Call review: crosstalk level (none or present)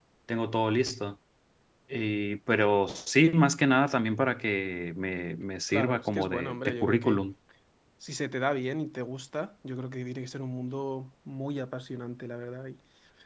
present